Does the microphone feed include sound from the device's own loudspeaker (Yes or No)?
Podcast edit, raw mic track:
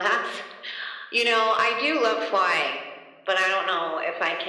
Yes